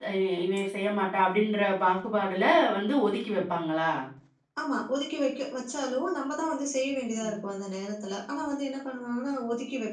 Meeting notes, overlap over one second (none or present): none